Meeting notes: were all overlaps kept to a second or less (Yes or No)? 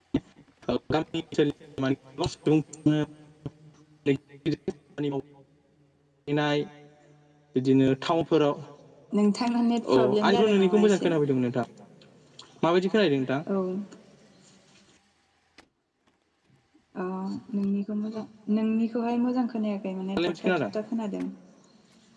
No